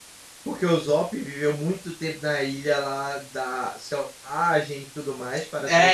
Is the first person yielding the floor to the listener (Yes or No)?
Yes